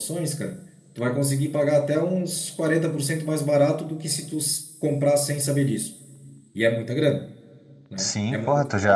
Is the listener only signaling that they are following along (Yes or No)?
No